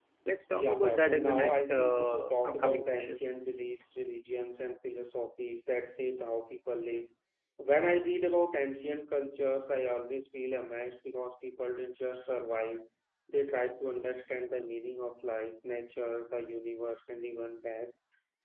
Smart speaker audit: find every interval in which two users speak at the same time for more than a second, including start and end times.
0.5-3.2

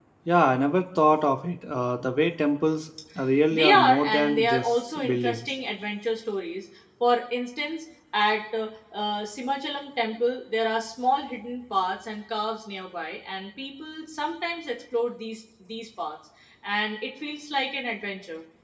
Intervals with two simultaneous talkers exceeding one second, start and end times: 3.5-5.5

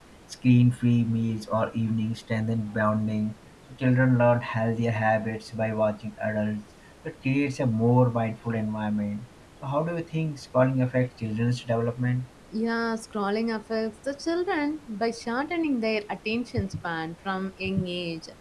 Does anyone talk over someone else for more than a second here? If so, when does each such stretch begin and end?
none

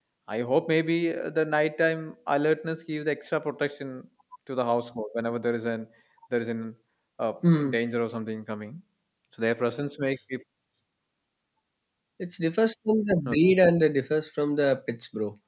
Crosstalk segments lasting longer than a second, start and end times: none

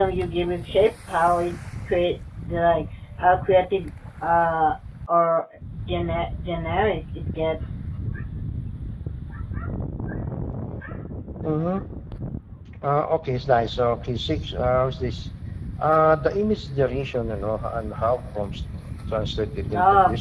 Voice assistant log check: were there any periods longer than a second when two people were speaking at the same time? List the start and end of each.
none

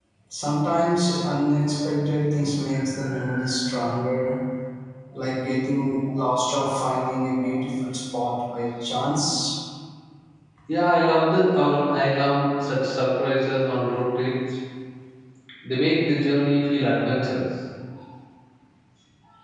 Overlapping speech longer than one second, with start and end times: none

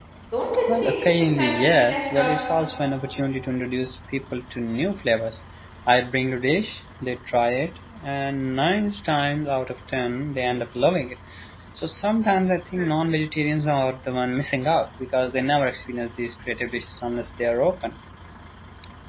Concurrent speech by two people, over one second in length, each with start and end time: 0.8-2.4

